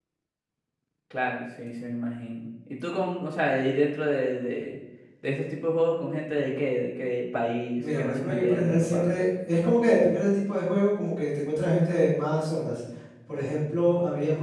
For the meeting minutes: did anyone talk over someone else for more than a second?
Yes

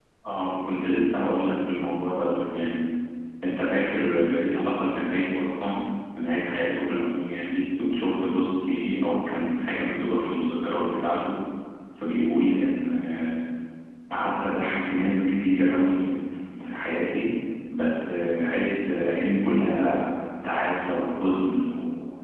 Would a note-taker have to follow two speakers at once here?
No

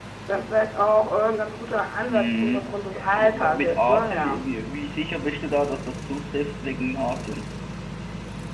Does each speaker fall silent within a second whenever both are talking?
No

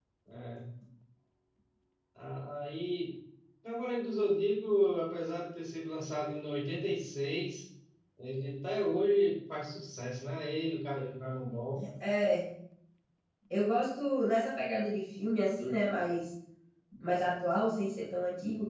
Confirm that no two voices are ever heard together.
Yes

